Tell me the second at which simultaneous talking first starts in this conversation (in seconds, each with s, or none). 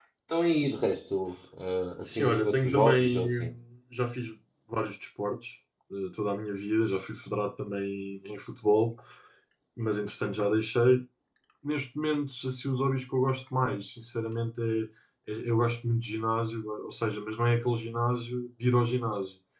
2.1 s